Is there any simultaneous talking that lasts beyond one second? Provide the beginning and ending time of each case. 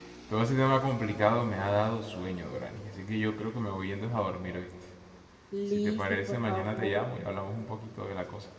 5.7-7.1

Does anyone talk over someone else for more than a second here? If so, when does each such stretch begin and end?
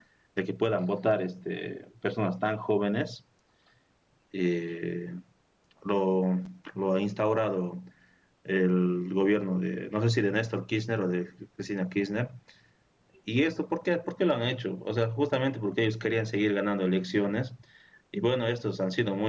none

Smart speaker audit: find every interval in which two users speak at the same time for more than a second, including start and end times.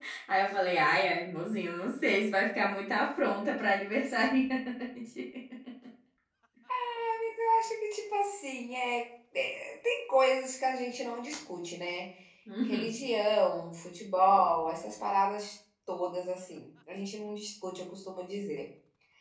none

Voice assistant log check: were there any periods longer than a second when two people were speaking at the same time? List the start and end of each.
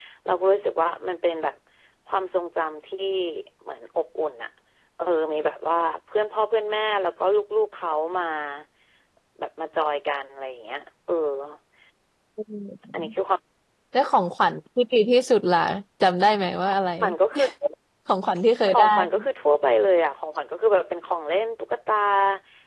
none

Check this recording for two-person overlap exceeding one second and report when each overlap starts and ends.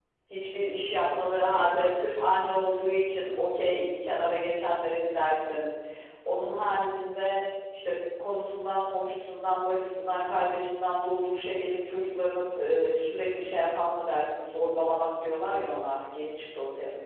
1.4-2.9

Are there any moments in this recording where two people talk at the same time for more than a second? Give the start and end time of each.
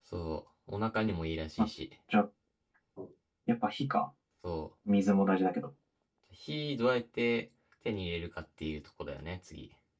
none

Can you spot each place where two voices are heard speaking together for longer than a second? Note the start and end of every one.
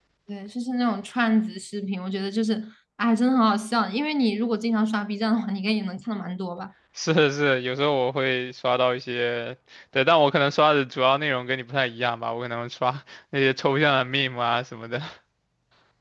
none

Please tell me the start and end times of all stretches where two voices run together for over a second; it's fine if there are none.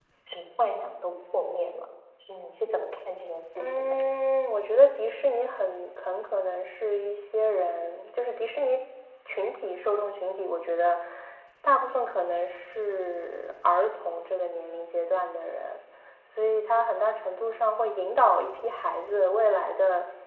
none

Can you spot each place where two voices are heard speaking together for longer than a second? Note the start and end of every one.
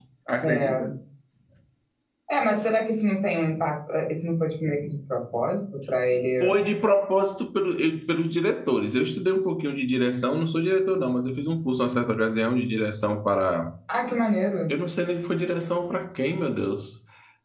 none

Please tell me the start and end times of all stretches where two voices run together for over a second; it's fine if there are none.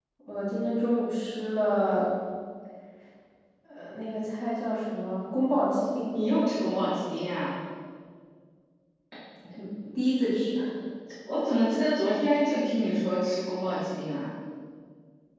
none

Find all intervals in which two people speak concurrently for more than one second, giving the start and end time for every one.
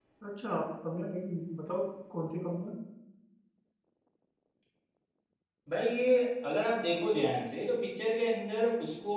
none

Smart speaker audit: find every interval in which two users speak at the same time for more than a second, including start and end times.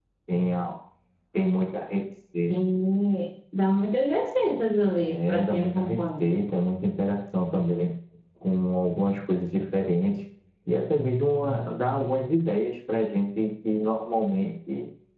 5.0-6.2

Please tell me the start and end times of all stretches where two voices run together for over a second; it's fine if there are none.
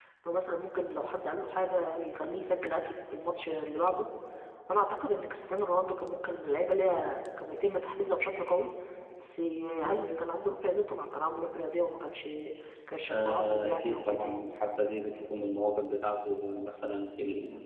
13.1-14.3

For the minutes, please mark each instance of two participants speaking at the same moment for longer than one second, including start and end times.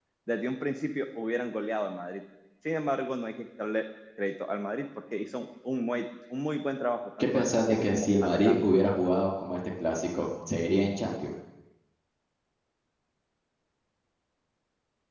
7.2-8.7

